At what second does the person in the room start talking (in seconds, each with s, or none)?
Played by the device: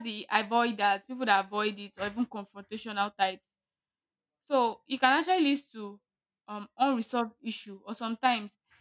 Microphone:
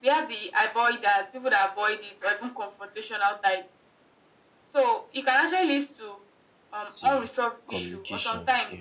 7.0 s